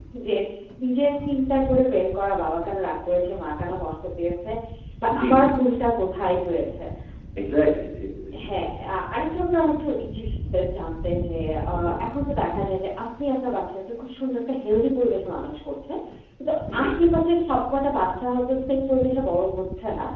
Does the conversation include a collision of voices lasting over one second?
No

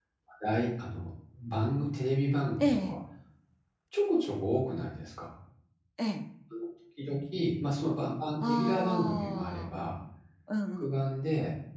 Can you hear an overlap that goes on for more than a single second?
Yes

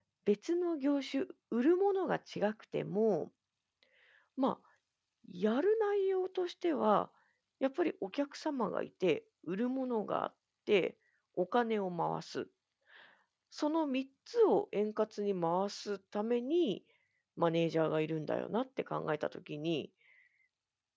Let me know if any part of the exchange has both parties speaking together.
No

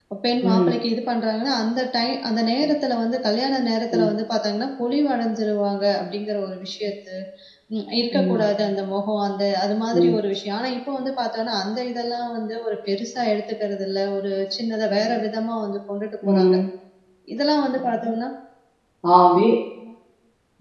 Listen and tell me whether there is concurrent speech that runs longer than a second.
No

